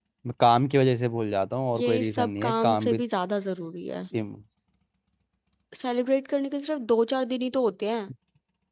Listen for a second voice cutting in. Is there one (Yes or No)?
Yes